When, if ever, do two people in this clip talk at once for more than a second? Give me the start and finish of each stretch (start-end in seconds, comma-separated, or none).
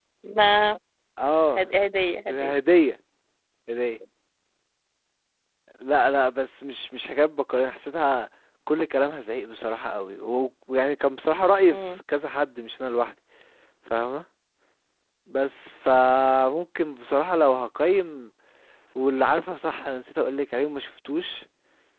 none